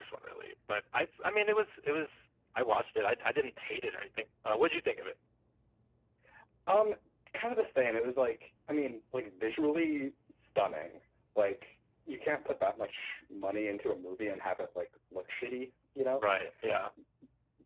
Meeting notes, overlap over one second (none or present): none